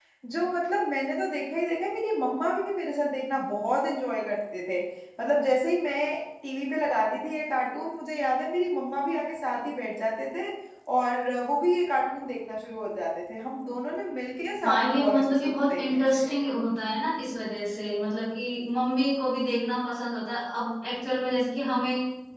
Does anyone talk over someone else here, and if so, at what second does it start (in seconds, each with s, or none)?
14.6 s